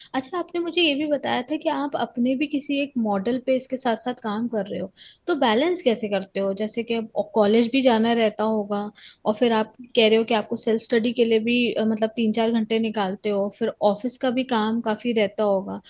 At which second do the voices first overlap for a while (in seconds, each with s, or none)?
none